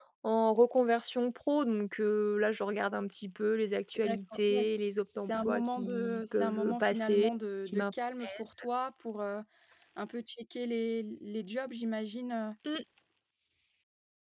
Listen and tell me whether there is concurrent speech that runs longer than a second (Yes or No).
Yes